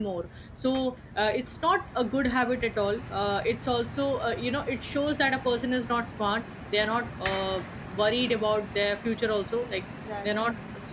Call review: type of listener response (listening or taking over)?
listening